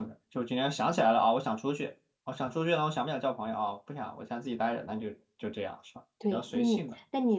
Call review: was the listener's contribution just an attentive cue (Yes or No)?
No